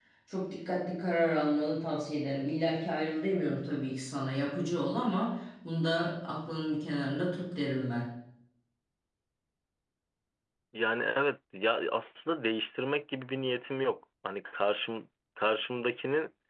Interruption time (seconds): none

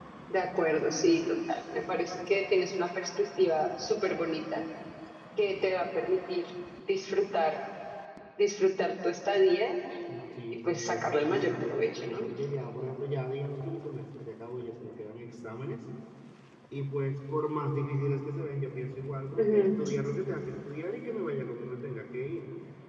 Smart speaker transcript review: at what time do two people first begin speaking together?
10.1 s

